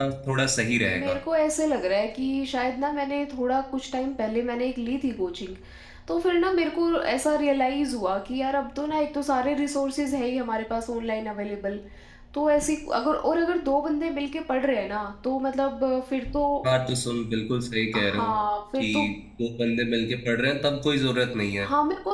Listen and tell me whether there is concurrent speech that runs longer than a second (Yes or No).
No